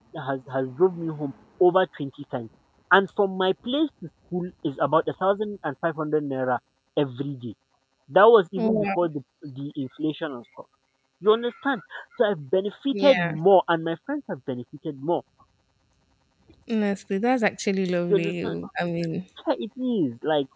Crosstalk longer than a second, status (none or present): none